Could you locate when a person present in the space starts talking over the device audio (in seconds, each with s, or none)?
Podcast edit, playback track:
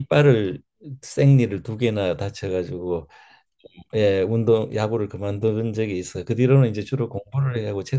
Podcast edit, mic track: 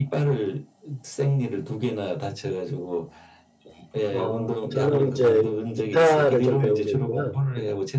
4.1 s